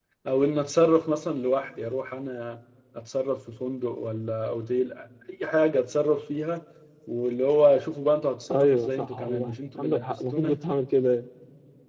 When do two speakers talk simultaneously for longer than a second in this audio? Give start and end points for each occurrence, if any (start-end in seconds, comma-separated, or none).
8.5-10.6